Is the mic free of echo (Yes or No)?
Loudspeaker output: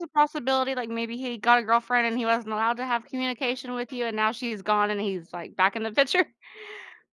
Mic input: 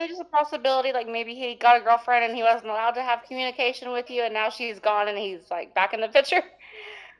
No